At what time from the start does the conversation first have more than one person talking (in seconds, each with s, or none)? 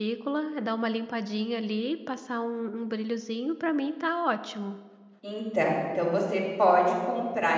none